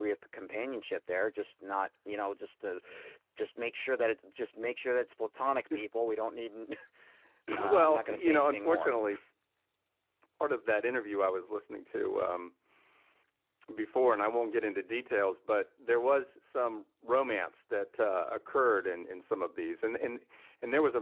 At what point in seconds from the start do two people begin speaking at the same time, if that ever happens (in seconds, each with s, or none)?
7.7 s